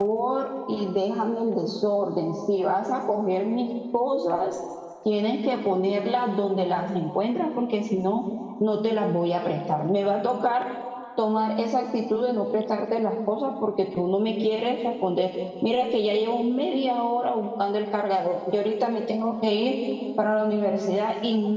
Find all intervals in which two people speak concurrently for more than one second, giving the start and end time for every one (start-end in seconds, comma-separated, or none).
none